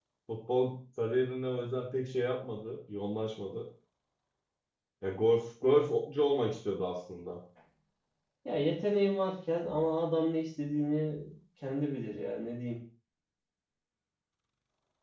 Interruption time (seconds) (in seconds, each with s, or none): none